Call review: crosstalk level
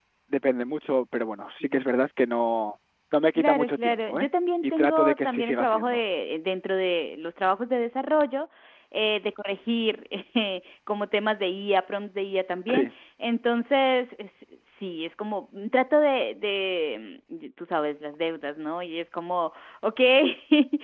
present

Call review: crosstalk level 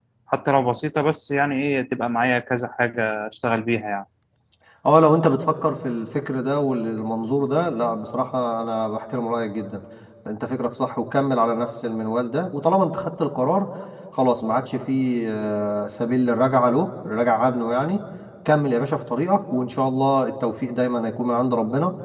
none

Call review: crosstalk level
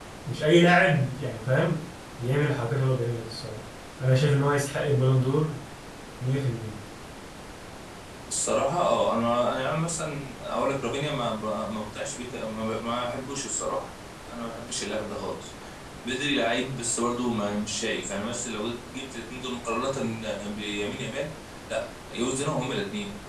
none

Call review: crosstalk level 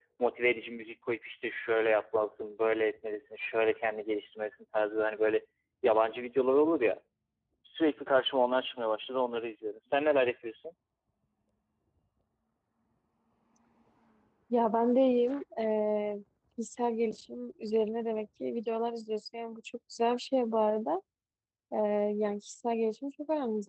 none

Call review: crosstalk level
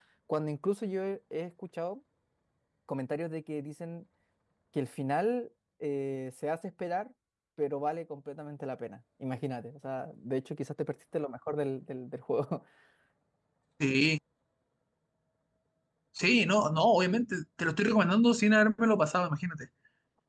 none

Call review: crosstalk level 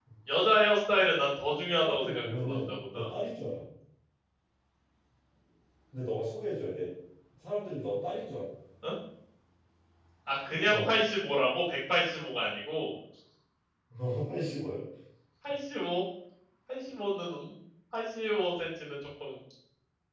present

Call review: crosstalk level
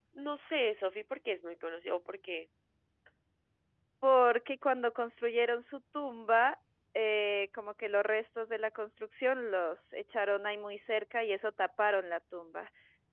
none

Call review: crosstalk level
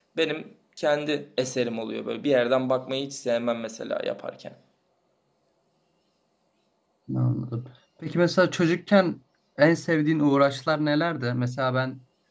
none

